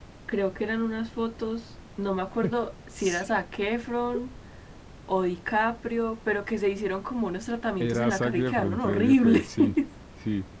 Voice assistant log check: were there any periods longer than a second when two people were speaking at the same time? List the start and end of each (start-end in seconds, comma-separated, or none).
7.8-9.5